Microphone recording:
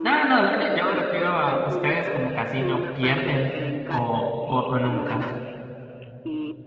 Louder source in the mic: user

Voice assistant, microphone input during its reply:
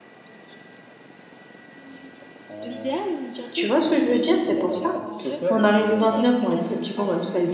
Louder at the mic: user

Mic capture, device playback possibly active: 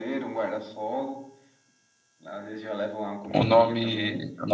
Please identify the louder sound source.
user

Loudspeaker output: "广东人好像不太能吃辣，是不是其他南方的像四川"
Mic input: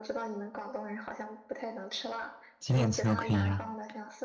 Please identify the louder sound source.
user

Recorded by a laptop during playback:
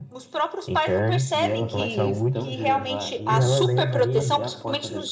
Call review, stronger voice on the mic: echo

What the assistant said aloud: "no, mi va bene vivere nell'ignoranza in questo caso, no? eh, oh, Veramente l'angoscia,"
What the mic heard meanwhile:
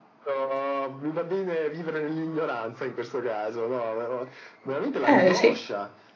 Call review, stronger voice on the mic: user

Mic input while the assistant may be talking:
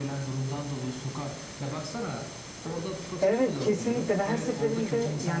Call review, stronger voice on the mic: user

